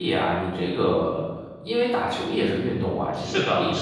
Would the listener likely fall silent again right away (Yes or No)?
No